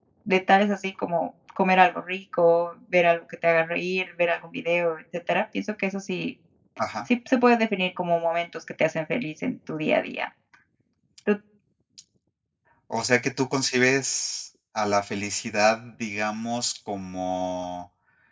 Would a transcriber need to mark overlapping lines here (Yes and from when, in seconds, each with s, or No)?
No